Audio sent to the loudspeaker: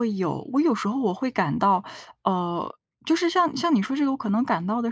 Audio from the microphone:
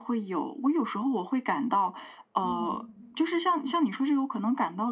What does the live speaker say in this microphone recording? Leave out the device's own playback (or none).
嗯。